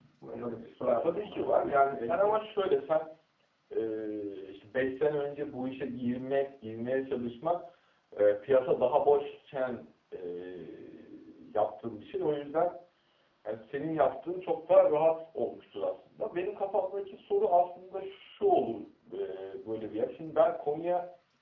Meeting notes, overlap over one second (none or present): present